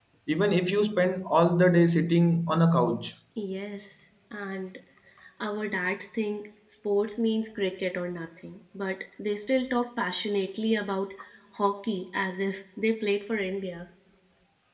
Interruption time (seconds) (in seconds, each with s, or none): none